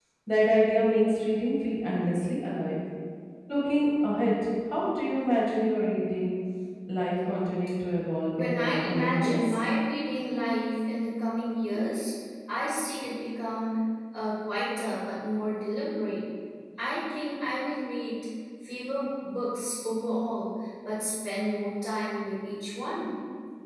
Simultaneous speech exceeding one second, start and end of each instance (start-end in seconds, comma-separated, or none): 8.3-9.6